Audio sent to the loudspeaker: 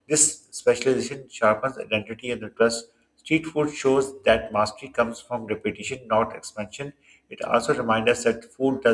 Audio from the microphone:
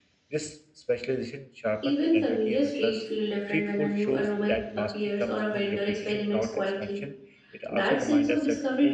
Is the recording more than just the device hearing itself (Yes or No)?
Yes